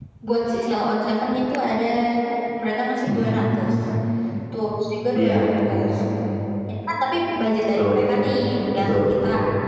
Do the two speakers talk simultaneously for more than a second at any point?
No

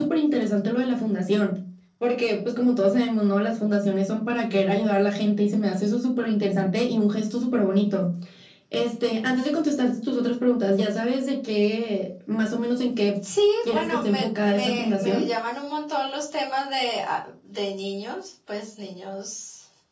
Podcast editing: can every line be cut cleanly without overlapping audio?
No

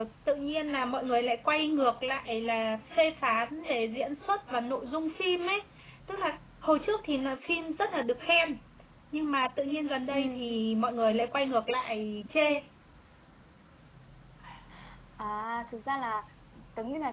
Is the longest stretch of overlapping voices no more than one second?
Yes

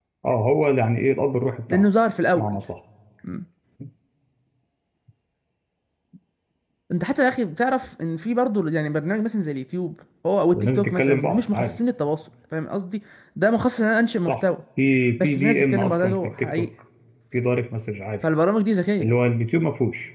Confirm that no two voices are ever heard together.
No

